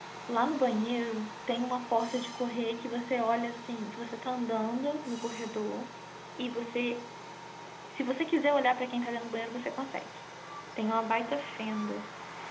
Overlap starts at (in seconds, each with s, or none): none